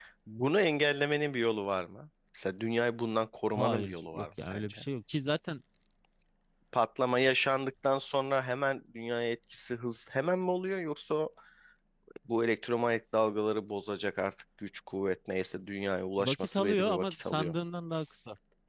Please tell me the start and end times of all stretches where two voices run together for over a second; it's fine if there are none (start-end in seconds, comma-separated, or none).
3.5-4.8, 16.2-17.6